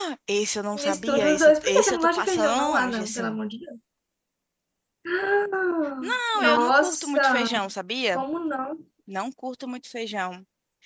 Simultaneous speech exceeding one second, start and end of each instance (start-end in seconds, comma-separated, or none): 0.8-3.4, 6.1-7.5